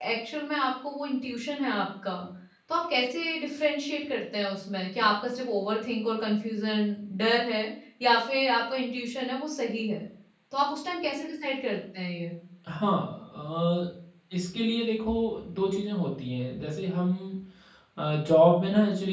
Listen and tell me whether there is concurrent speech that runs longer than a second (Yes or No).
No